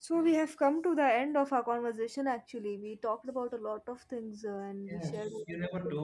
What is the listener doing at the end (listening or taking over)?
taking over